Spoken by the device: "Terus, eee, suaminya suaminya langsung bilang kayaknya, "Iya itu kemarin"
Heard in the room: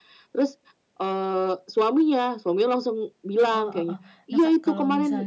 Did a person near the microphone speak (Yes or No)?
Yes